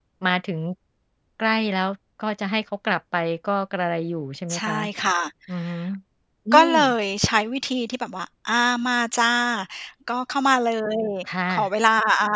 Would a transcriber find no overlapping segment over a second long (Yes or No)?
Yes